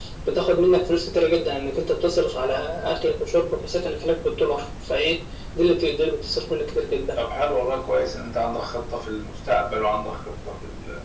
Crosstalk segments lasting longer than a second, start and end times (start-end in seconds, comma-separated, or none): none